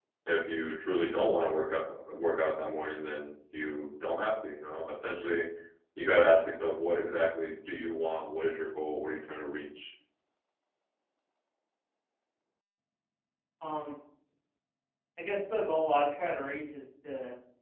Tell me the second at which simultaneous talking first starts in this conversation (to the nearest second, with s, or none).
none